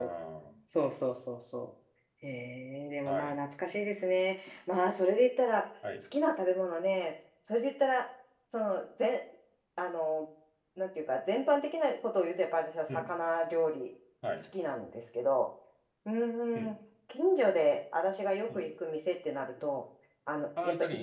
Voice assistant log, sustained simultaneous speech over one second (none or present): none